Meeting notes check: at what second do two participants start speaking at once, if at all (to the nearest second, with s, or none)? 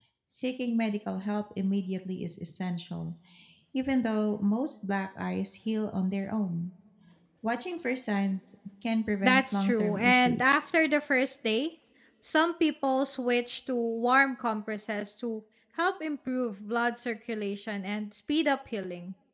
9 s